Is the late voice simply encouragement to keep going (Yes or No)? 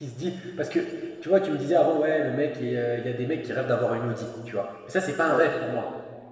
Yes